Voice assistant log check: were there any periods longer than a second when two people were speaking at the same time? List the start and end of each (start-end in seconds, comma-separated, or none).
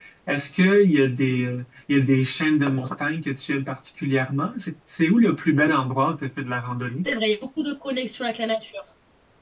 none